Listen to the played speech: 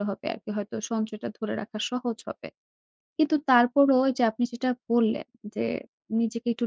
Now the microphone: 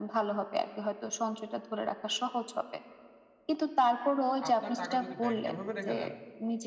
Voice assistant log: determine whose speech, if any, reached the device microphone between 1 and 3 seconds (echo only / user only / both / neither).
echo only